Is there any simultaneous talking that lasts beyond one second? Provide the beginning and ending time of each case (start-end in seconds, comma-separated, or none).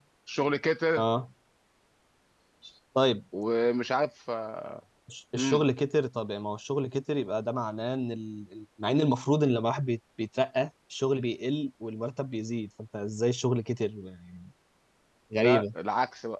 none